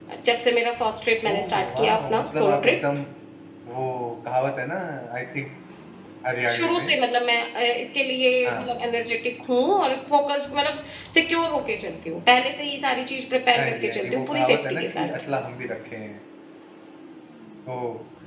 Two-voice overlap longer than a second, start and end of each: 1.2-2.8, 13.6-15.1

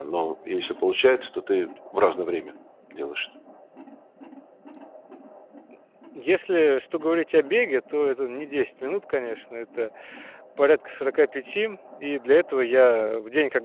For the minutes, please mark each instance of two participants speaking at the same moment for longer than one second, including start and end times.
none

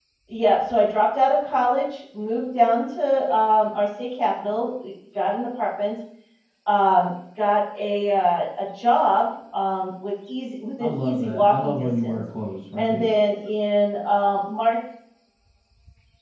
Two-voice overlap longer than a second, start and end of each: 10.8-12.2

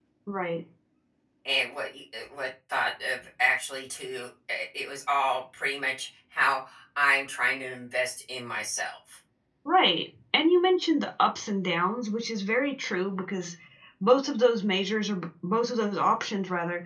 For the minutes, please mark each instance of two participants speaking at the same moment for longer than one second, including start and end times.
none

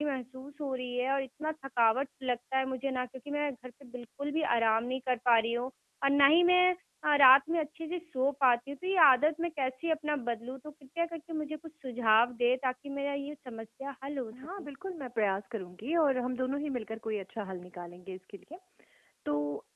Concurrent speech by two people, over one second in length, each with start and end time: none

